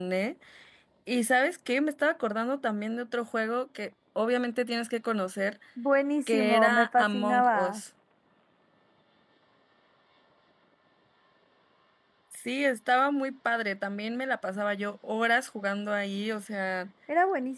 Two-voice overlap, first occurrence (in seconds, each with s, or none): 6.3 s